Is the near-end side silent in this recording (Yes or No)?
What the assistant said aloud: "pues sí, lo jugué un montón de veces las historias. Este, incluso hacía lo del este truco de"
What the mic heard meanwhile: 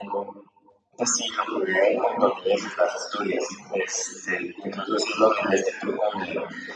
Yes